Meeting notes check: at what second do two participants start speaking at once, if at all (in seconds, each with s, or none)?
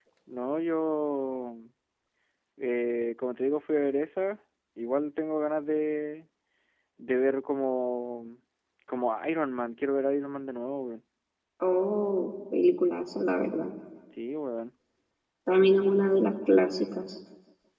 none